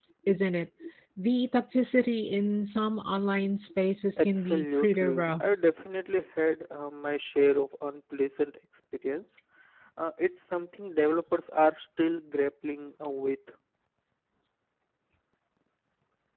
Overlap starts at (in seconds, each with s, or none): 4.2 s